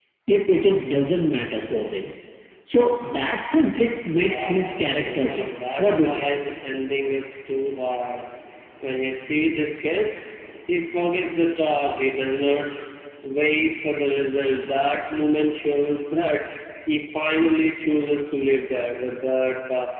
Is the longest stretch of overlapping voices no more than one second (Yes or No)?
No